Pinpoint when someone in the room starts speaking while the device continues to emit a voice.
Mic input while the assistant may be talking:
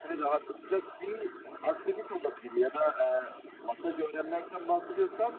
none

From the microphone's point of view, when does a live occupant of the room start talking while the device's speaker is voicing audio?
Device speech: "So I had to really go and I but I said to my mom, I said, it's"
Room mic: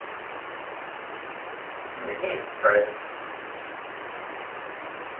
1.9 s

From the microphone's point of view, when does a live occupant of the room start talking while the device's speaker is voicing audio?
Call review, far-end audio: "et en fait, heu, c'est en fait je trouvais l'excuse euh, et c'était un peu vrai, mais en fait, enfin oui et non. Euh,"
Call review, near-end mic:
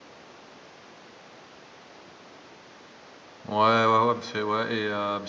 3.5 s

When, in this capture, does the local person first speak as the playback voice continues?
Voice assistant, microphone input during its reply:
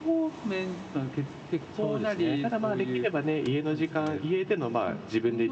none

